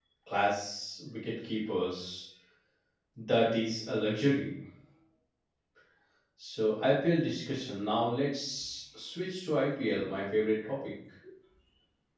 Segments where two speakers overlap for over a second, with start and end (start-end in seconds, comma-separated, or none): none